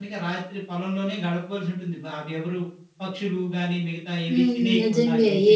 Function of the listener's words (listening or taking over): taking over